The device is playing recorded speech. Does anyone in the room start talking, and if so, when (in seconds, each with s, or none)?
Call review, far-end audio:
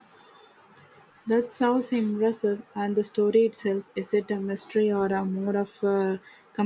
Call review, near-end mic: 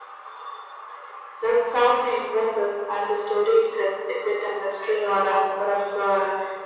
none